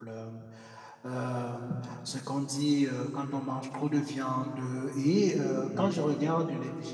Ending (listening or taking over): listening